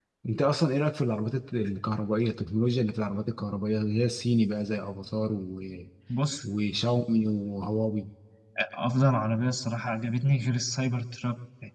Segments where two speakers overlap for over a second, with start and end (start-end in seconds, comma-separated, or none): none